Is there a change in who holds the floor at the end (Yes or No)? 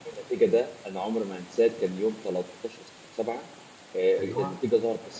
No